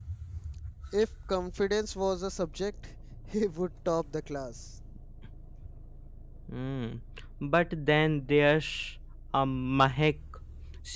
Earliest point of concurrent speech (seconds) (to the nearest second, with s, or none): none